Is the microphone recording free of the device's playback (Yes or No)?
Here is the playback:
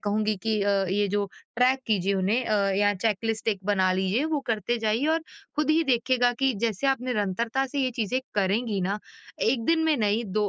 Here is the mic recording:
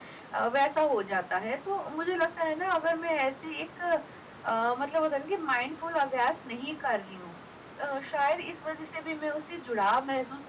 Yes